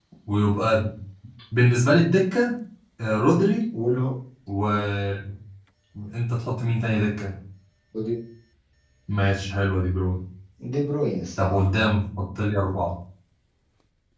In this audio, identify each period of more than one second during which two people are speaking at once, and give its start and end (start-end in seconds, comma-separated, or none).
none